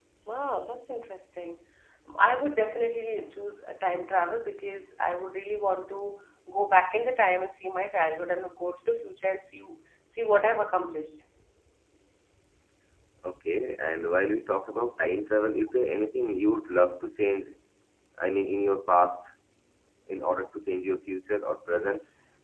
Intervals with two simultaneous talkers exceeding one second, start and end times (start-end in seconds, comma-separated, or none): none